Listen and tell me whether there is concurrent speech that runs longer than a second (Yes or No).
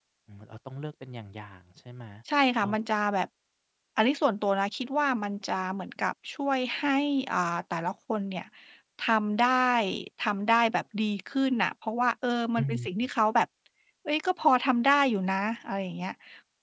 No